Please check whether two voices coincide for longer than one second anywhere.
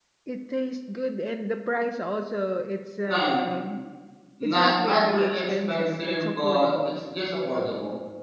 Yes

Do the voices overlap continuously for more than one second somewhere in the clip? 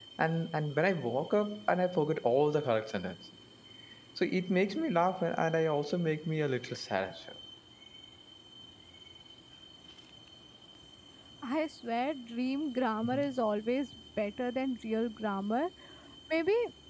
No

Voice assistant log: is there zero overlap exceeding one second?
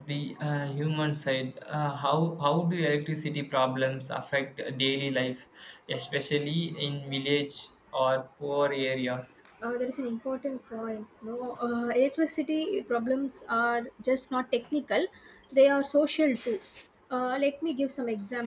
Yes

